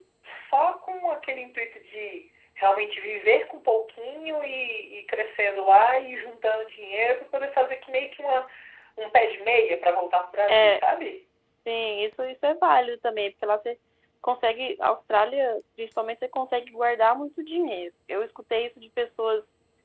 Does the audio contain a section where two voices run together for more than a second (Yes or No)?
No